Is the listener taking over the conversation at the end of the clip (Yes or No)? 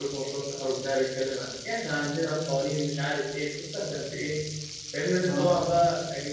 No